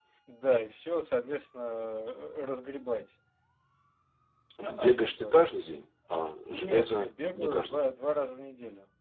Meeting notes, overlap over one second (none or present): present